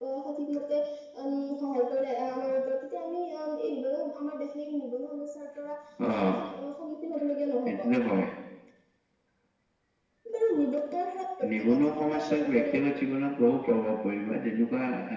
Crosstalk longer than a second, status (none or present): present